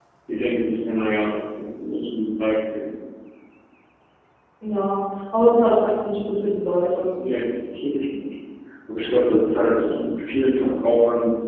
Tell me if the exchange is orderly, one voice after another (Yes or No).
Yes